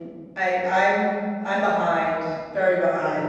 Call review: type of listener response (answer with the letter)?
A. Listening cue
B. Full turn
B